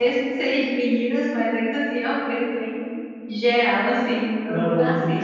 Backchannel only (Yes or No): No